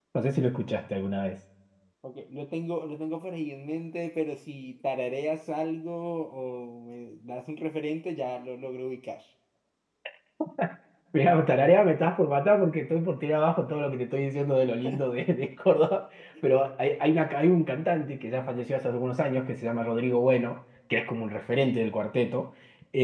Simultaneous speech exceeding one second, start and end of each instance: none

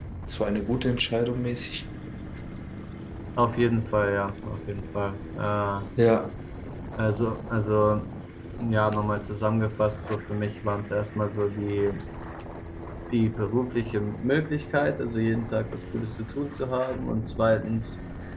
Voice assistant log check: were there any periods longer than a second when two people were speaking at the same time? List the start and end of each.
none

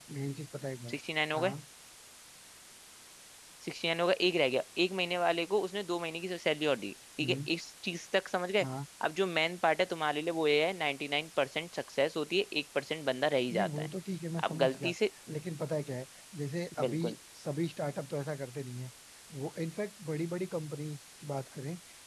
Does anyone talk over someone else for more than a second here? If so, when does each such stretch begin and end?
none

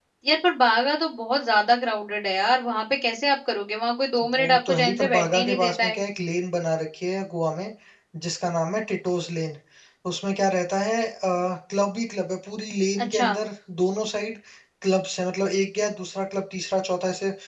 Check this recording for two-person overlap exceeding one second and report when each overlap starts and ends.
4.3-6.0

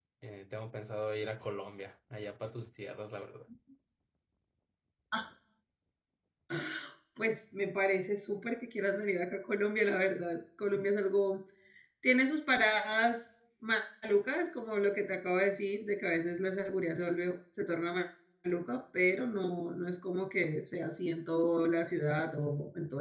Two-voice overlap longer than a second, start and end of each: none

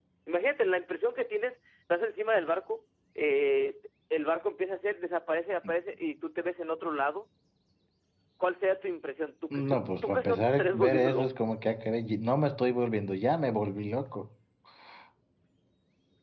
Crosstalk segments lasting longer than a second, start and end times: 9.5-11.3

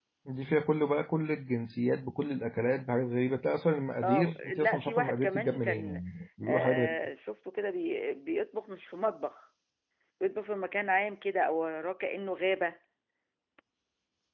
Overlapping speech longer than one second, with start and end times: 4.0-6.0

